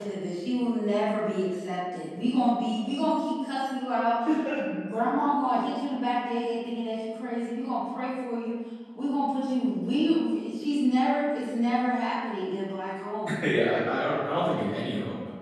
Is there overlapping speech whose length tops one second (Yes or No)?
No